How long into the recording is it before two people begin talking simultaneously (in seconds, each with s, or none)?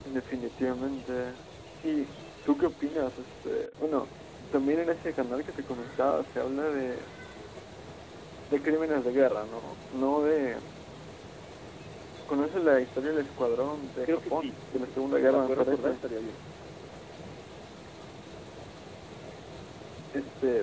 14.1 s